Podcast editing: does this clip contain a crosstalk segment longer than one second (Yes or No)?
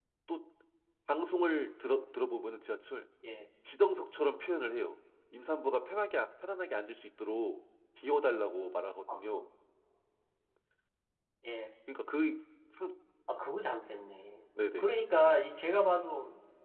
No